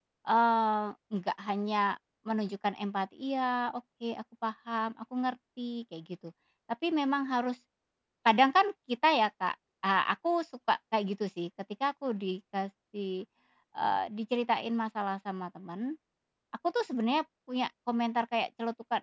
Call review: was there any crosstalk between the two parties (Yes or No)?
No